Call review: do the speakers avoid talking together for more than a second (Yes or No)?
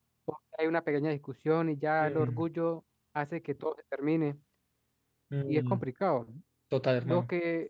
Yes